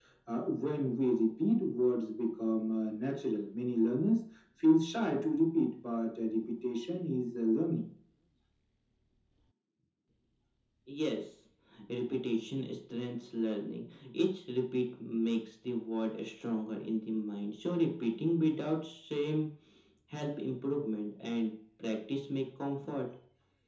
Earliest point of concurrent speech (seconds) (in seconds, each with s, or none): none